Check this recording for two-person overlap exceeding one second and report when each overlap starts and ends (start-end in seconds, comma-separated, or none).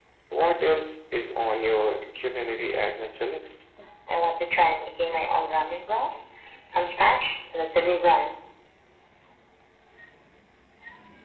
none